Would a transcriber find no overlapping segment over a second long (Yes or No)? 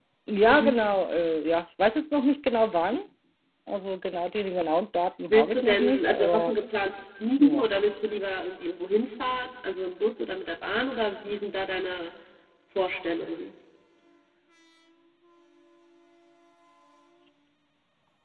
No